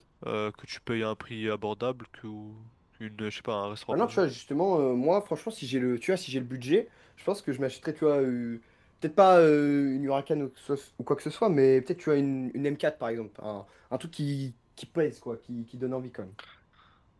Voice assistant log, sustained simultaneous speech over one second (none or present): none